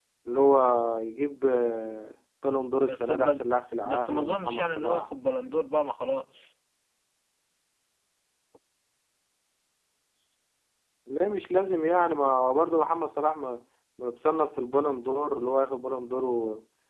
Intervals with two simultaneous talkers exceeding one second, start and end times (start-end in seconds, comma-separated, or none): 3.8-5.1